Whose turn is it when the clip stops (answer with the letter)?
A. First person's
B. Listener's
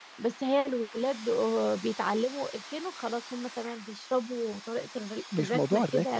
B